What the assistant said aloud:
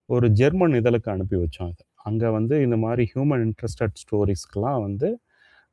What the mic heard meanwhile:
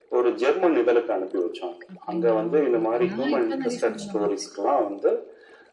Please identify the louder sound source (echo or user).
echo